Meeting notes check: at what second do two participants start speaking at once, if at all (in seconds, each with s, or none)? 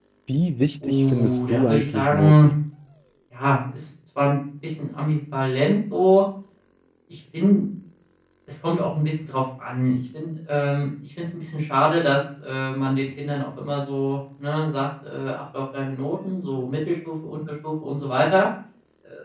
0.8 s